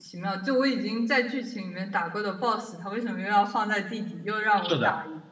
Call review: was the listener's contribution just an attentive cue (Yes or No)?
No